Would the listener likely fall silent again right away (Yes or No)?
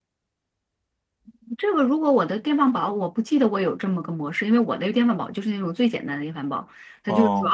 Yes